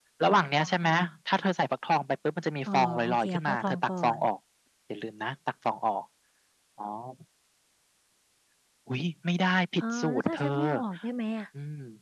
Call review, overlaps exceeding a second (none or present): present